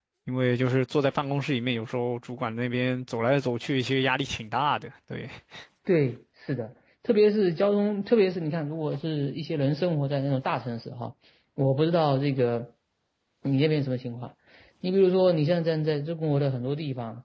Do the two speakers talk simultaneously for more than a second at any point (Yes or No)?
No